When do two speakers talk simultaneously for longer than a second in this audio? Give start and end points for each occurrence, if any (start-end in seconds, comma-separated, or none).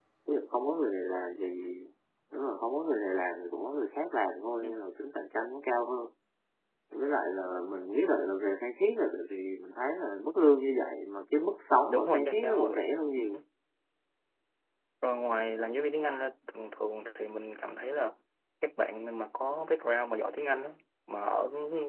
11.9-13.2